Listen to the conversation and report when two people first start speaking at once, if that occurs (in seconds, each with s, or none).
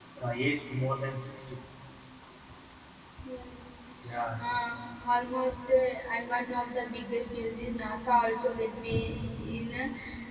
none